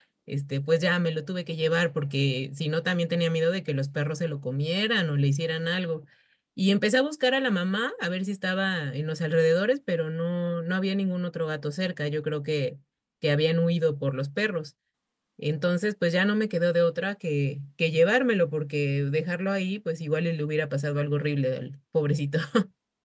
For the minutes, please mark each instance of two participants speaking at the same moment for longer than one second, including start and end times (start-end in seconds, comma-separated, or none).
none